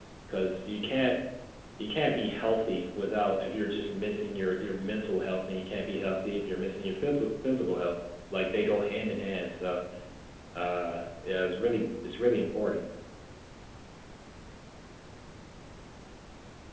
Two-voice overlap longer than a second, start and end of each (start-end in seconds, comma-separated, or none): none